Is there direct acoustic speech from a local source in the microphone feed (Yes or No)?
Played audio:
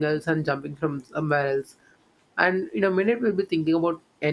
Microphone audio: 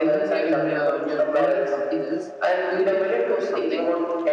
Yes